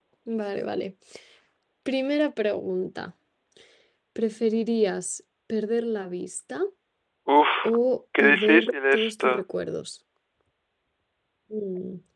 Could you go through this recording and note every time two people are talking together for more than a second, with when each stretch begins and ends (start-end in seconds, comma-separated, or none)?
8.2-9.4